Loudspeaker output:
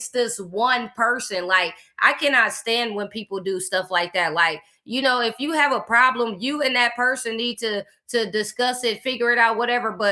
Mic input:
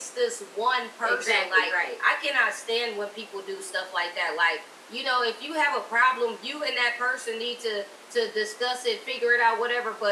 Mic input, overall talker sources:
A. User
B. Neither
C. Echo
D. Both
D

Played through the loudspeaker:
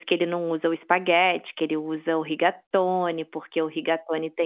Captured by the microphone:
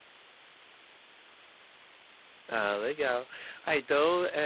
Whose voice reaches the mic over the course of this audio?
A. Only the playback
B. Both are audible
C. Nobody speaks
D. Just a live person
D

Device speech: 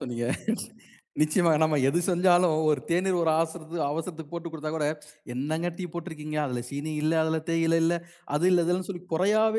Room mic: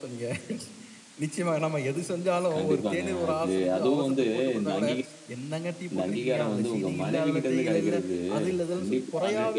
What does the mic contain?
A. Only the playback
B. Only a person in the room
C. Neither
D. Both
D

